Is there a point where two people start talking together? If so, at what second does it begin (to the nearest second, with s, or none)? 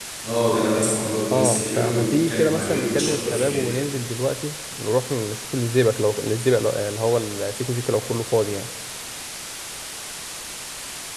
1 s